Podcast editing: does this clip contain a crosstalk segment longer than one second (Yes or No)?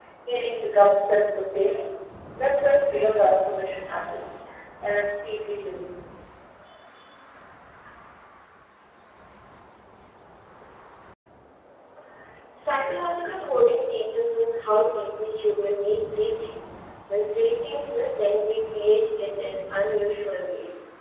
No